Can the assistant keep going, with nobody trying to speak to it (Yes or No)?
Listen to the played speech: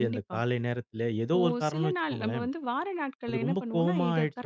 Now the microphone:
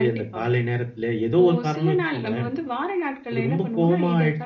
Yes